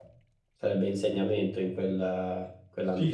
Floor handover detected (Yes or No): Yes